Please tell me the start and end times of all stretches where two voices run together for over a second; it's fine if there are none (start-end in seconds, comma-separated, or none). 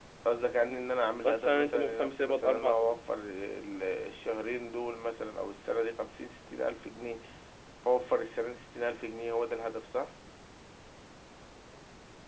1.2-2.9